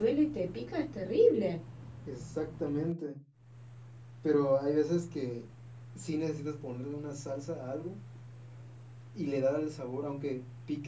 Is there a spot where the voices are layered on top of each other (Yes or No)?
No